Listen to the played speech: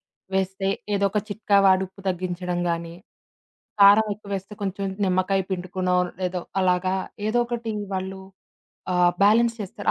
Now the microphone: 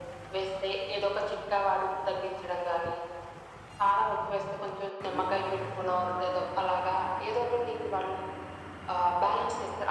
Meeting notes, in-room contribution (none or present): none